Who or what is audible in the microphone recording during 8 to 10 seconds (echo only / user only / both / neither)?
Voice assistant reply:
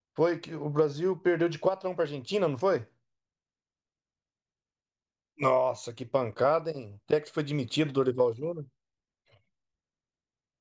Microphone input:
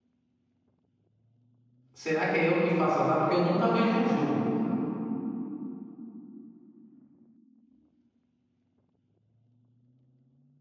neither